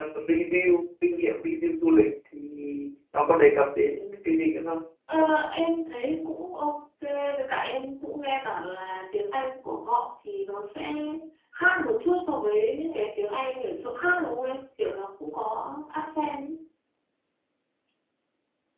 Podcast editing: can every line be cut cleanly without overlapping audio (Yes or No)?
Yes